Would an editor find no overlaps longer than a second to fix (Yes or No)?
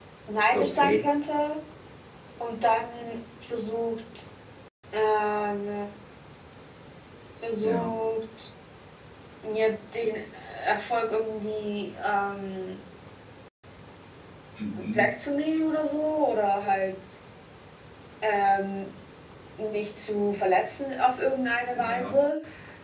Yes